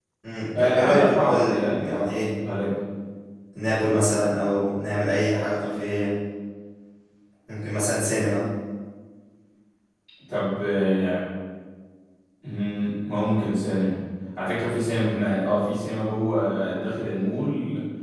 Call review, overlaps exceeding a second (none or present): present